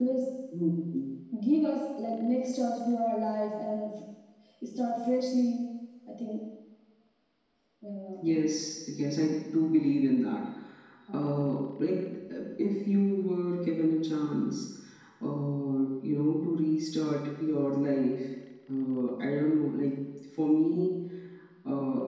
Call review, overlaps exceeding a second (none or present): none